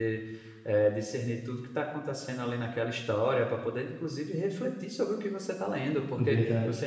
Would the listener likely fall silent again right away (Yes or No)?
Yes